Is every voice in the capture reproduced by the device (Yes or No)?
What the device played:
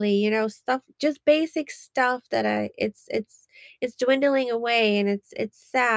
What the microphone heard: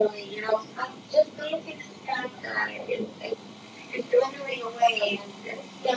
Yes